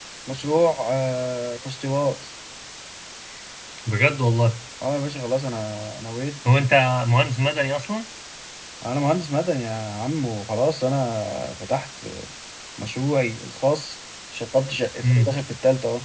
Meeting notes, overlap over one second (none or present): none